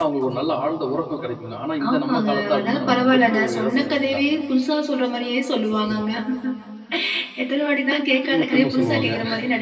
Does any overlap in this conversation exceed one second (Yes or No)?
Yes